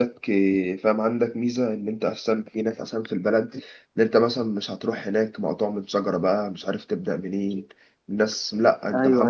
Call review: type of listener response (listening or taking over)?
taking over